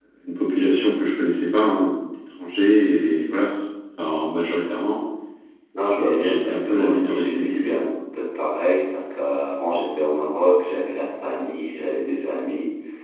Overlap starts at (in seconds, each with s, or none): 6.0 s